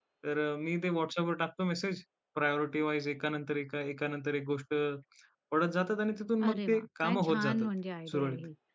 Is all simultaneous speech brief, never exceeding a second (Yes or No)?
No